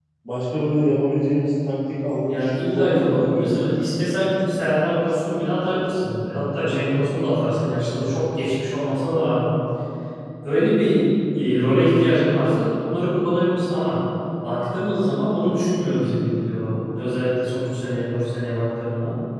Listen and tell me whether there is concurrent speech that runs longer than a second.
Yes, from 2.3 s

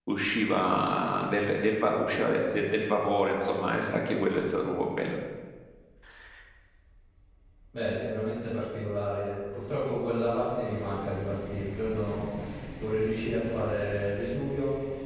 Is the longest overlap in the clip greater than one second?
No

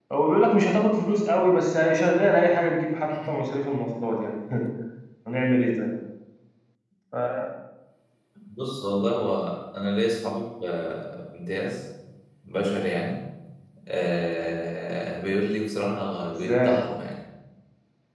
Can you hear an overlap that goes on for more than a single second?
No

